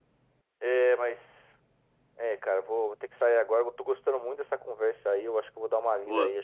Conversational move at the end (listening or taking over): listening